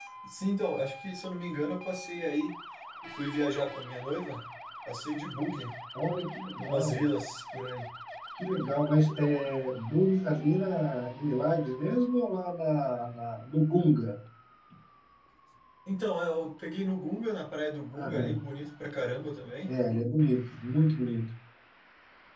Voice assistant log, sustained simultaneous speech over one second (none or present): none